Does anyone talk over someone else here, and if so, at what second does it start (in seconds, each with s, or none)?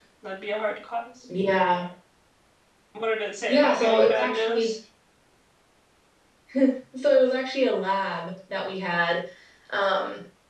3.5 s